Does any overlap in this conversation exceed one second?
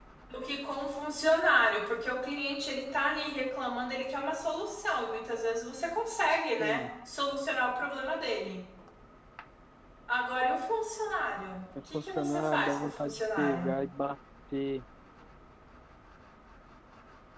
Yes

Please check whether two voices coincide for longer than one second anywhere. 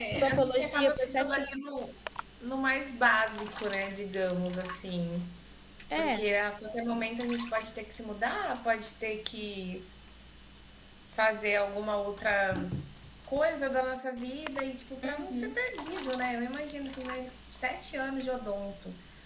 Yes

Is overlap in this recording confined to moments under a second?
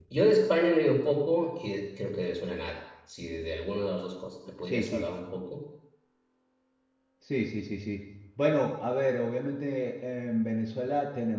Yes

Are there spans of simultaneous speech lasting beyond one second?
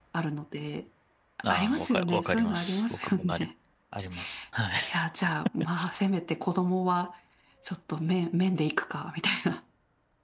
Yes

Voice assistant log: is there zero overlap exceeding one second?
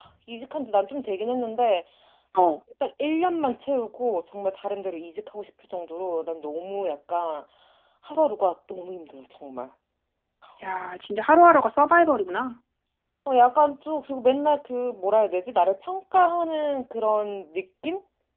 Yes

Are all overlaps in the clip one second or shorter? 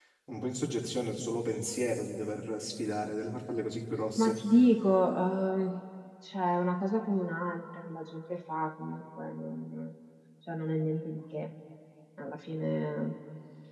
Yes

